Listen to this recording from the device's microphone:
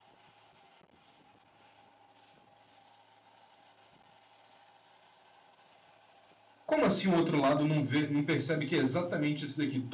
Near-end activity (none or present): present